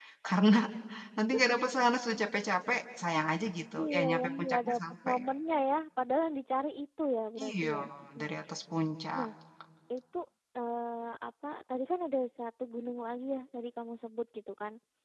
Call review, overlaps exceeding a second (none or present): present